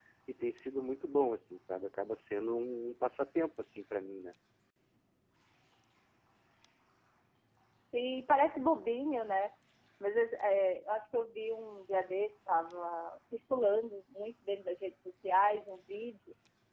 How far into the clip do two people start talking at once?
none

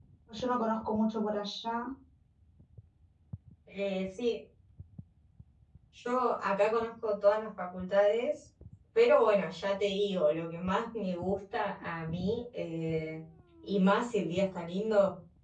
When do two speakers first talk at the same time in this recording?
none

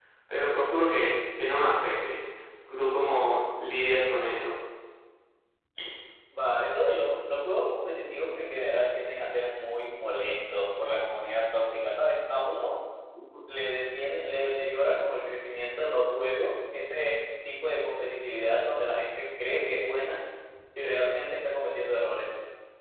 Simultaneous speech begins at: none

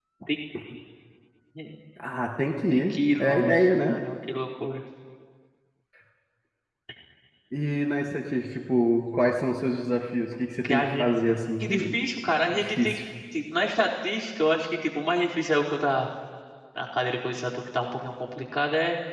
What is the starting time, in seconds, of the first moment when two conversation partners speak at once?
2.7 s

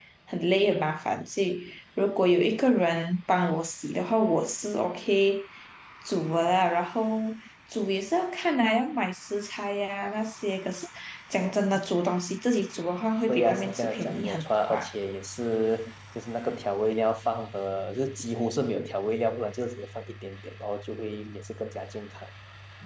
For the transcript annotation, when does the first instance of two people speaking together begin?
13.3 s

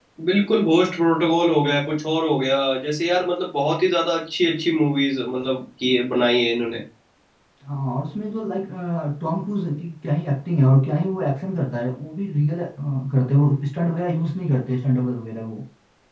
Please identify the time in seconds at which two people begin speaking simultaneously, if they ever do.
none

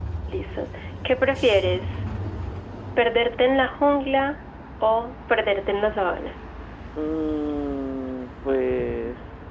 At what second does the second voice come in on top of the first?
none

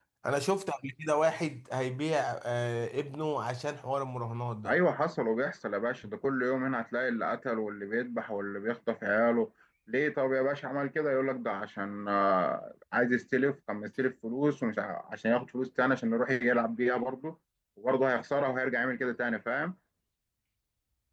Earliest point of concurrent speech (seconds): none

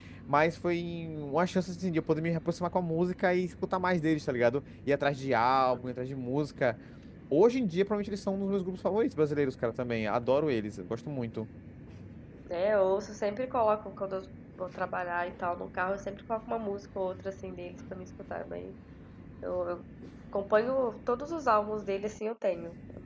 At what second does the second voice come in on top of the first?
none

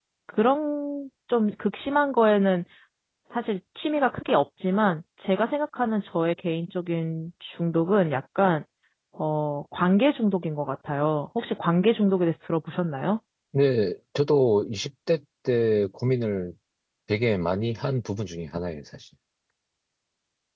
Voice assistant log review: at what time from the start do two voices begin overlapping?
none

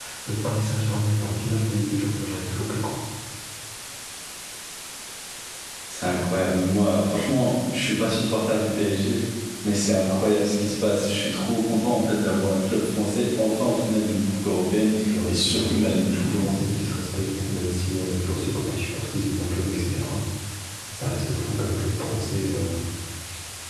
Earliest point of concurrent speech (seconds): 15.3 s

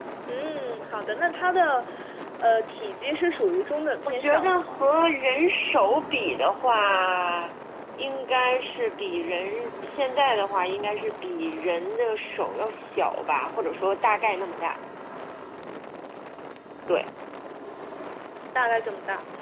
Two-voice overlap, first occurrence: 3.6 s

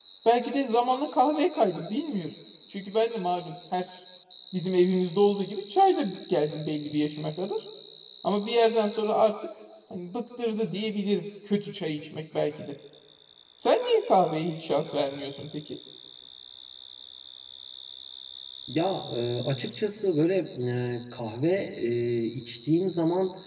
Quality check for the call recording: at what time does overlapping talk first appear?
none

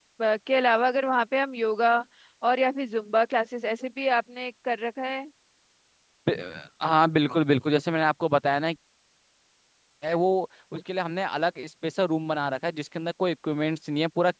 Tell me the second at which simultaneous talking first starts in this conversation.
none

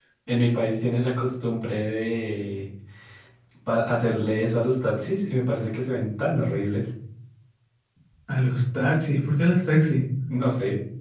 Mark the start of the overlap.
none

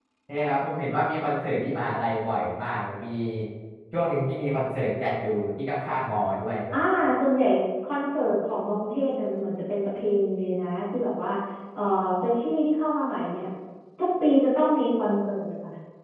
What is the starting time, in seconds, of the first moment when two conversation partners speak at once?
none

